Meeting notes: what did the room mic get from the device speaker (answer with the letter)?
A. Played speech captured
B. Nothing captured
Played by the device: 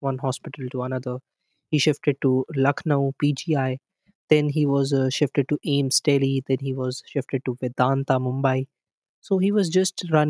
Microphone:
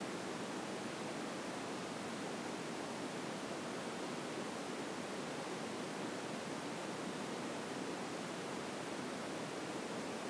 B